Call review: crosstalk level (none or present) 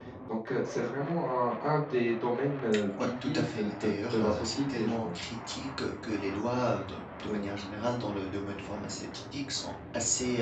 present